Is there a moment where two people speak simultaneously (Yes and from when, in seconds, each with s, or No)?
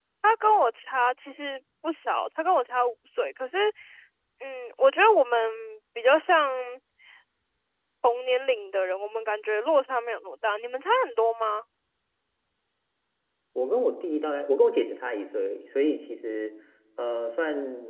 No